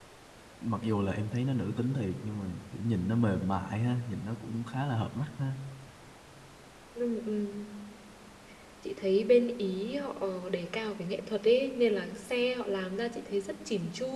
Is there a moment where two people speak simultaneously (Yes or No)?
No